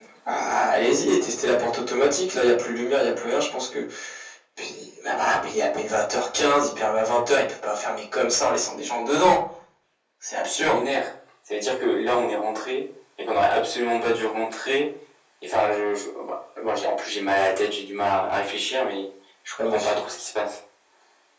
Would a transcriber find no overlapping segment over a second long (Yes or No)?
Yes